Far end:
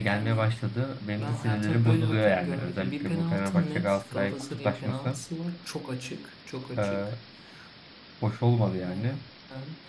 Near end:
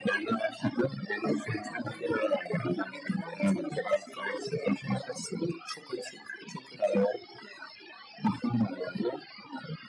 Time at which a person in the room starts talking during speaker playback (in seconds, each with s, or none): none